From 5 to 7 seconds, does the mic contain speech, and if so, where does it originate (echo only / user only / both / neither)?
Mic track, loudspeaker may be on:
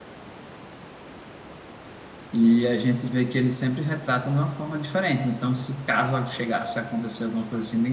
user only